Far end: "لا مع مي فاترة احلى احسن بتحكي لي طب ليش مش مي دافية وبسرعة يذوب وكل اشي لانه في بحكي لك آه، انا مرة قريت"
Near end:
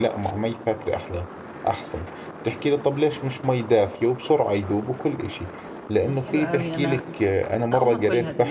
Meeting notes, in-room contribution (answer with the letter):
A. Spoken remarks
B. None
A